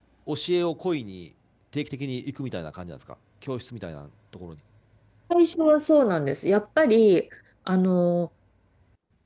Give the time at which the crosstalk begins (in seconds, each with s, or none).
none